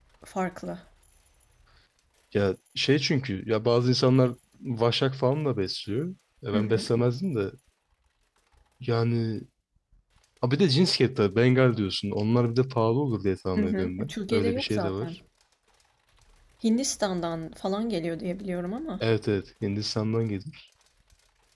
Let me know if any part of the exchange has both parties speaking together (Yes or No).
Yes